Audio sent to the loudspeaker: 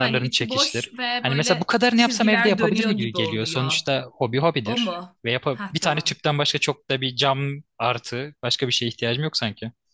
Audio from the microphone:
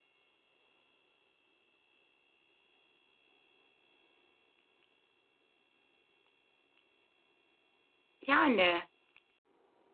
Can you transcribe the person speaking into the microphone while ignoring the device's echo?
Yani

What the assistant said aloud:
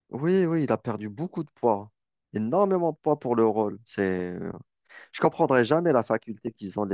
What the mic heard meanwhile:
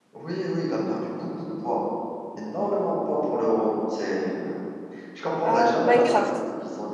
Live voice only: ah, Minecraft.

